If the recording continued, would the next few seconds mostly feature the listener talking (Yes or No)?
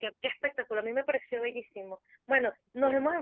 No